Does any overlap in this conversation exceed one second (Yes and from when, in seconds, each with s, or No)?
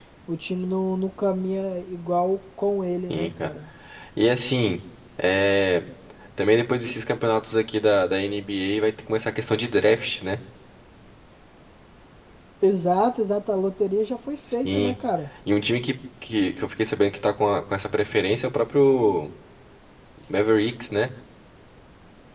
No